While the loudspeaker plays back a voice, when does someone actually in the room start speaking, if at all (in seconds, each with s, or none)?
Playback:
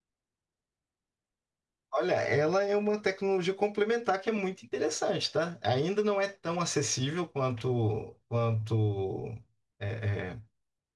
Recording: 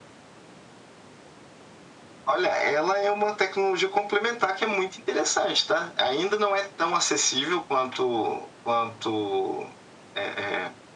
none